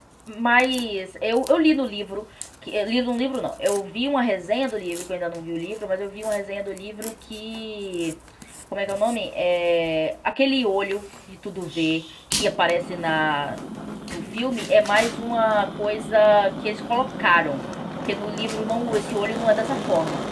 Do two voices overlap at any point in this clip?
No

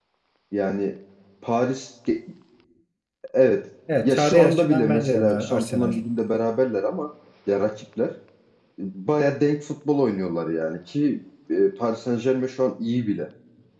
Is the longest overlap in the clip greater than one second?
Yes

